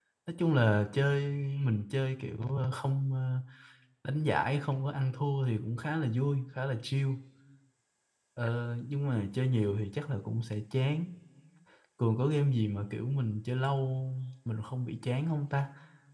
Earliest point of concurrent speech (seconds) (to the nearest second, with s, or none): none